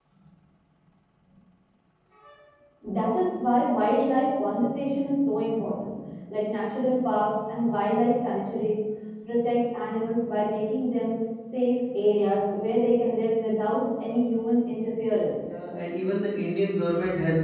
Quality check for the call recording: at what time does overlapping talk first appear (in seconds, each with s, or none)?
none